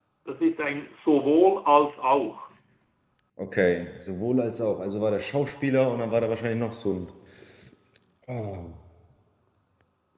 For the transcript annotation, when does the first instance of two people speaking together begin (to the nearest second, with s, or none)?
none